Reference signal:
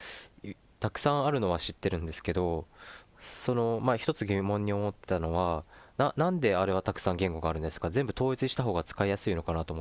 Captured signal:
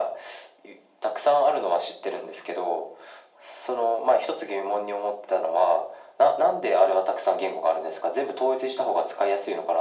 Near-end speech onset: none

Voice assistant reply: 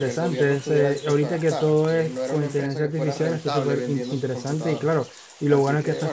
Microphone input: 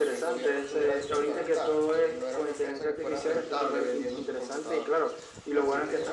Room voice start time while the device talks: none

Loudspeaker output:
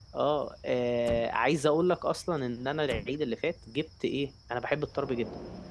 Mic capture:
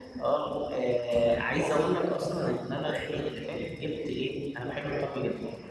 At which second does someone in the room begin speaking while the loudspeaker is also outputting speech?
none

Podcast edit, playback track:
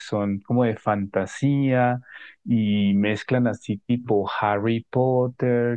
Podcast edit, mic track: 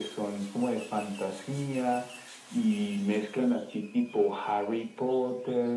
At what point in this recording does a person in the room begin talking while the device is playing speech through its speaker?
none

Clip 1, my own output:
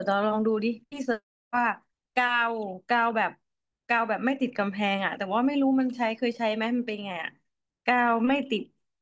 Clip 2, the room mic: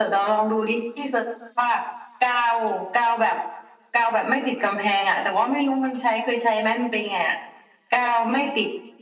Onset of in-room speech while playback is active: none

